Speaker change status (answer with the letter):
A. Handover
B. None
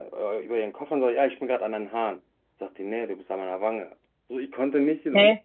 B